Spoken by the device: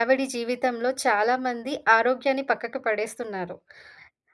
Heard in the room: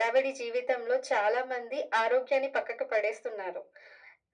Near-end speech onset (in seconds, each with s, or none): none